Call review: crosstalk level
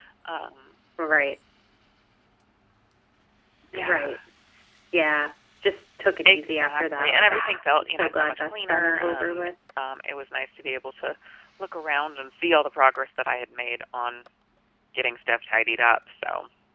present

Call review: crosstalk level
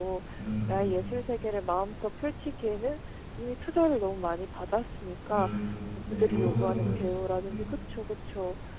present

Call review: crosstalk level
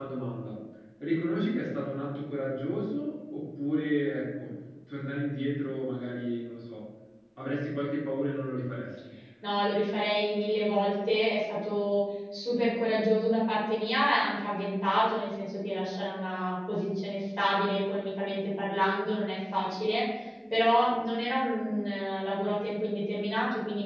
none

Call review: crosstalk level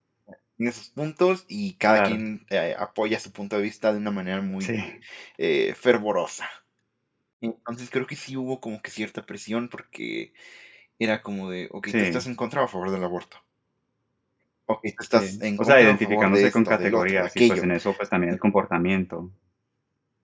present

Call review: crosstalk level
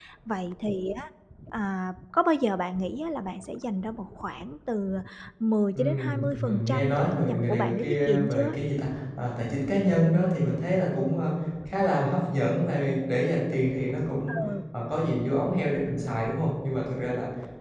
present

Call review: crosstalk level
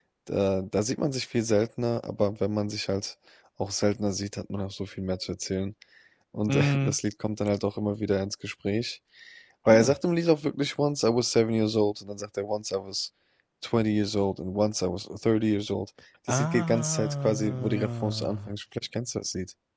present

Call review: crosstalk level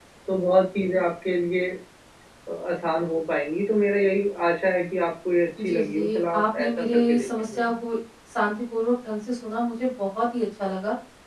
present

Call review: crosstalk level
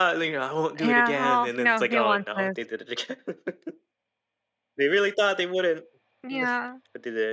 present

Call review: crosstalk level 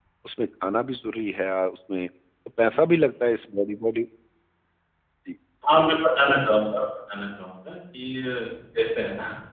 none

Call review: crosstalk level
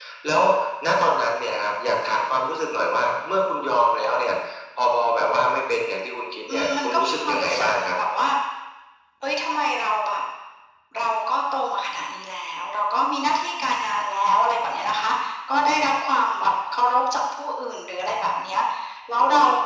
present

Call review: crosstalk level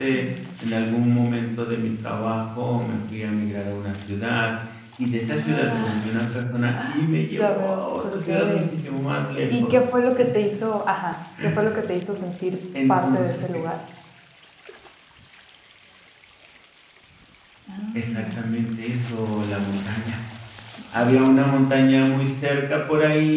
present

